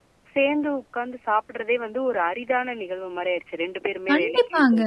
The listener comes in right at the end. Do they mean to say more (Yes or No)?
Yes